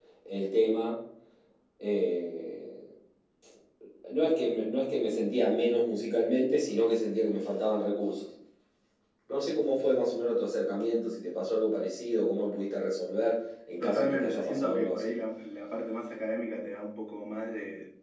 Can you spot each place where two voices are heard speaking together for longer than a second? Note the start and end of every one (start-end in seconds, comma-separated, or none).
13.8-15.1